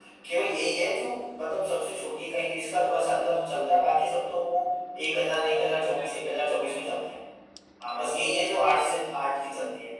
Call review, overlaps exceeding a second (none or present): present